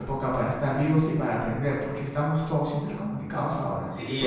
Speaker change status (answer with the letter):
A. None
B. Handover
B